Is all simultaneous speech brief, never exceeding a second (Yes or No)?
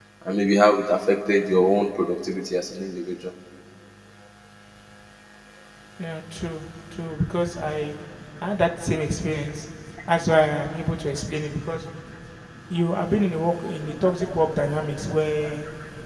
Yes